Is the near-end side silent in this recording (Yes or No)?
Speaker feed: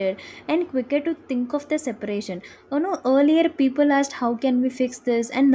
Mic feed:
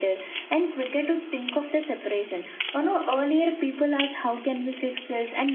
Yes